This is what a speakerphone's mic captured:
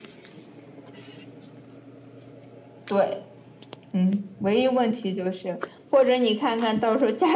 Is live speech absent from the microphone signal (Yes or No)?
Yes